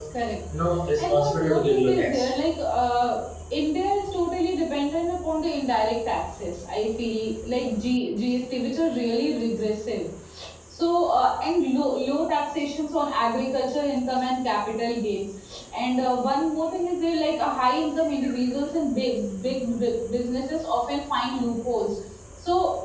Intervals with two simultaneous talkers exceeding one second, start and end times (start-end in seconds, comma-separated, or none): 1.0-2.3